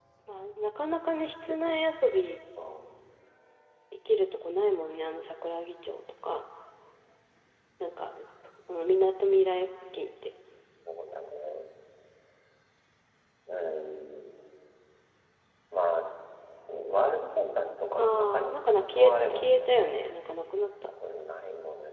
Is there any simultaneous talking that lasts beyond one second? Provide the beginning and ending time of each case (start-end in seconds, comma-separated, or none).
18.0-20.0